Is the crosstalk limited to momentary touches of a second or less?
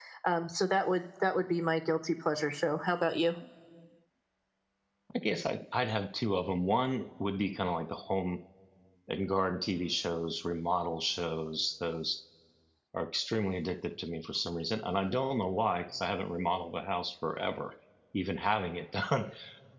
Yes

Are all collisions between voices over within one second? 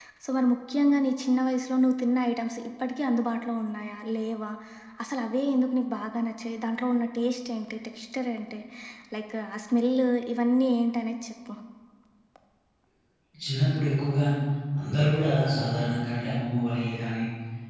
Yes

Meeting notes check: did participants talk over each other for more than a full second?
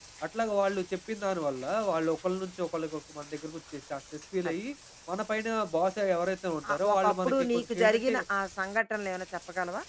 Yes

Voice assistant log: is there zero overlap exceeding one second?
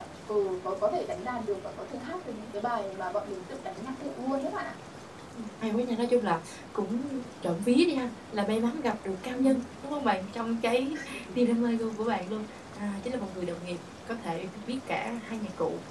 Yes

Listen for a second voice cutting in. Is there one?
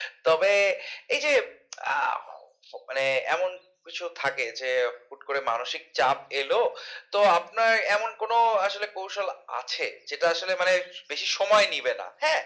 No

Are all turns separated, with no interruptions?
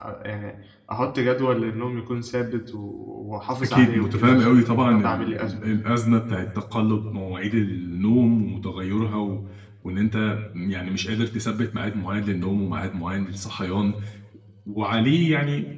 No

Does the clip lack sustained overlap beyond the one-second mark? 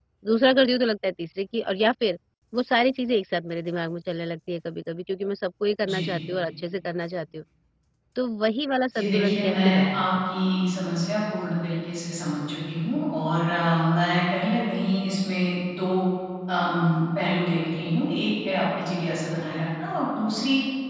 No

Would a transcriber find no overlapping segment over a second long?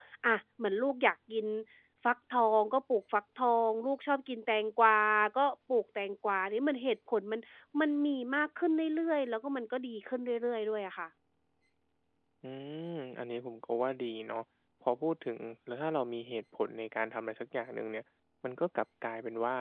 Yes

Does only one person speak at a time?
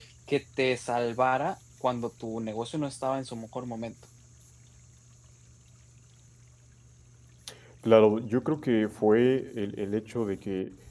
Yes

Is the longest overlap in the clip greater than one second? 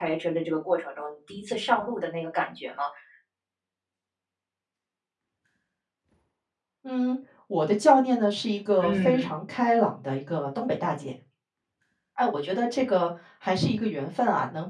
No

